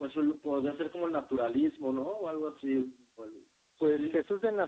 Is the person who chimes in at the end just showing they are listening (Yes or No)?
No